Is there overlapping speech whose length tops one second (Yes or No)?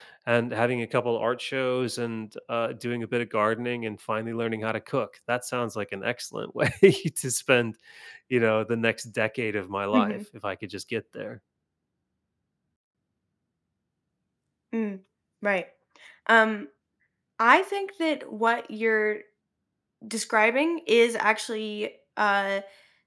No